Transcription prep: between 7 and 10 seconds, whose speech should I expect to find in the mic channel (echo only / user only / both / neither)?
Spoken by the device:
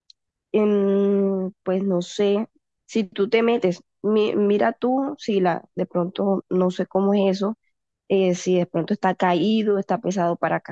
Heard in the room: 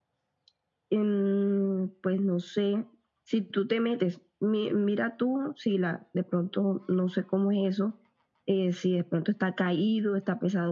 echo only